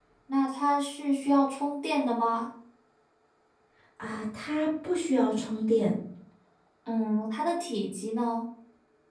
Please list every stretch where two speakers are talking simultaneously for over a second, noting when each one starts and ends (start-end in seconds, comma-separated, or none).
none